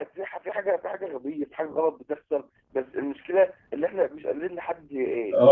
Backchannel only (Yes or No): No